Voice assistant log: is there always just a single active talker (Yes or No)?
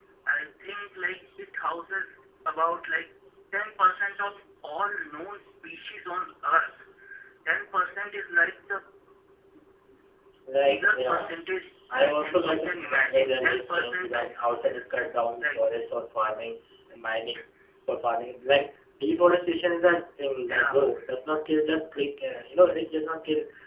No